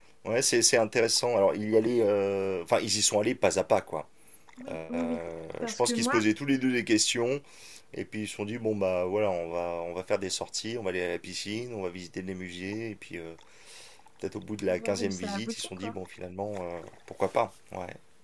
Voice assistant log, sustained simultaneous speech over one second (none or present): present